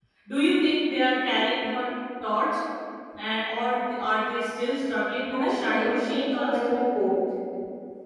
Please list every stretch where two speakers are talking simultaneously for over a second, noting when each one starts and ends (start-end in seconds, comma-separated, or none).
5.3-6.6